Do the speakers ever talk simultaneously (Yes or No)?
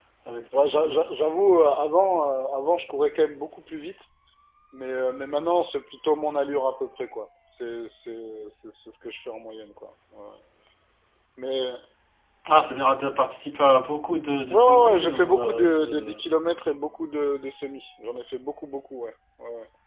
Yes